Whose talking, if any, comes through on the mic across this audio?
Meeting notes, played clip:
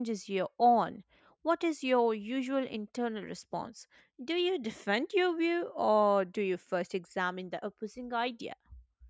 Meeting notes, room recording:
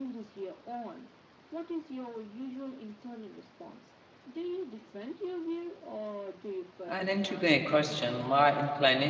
both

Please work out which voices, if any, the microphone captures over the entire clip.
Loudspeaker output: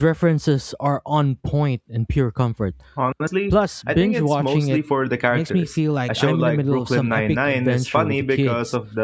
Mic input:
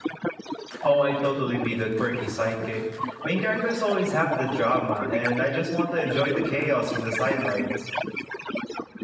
both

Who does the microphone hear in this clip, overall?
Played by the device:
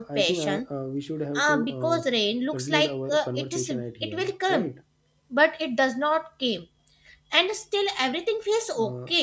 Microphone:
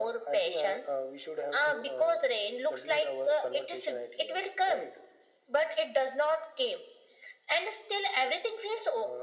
echo only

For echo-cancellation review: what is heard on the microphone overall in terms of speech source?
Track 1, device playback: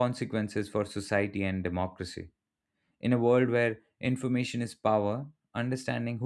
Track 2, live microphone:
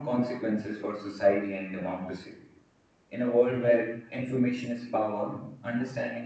echo only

